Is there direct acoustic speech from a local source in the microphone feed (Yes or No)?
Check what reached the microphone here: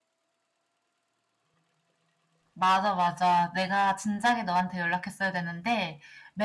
Yes